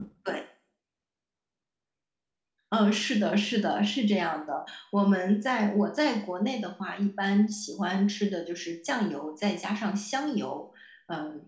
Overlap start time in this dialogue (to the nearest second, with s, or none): none